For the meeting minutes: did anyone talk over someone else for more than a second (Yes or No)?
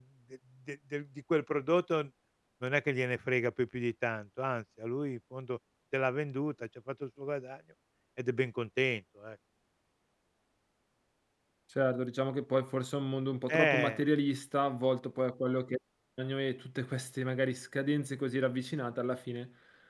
No